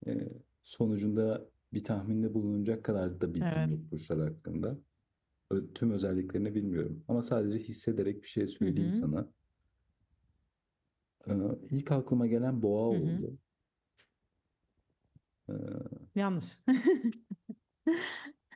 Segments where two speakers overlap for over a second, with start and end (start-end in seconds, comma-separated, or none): none